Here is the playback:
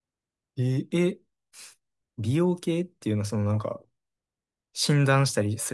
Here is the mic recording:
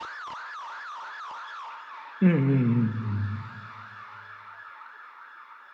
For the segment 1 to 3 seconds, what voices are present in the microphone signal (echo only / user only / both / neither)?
user only